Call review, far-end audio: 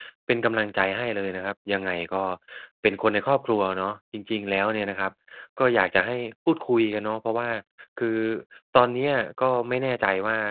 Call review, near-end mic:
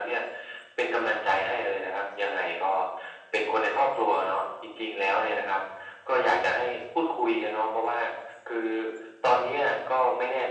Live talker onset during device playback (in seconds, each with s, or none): none